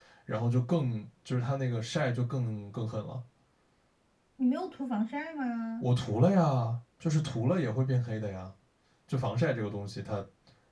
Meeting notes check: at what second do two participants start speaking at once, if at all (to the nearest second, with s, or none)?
none